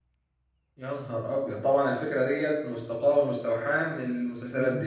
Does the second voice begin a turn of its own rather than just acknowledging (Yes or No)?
Yes